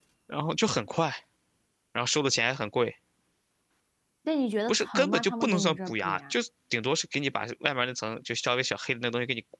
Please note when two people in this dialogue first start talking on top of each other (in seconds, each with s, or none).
4.7 s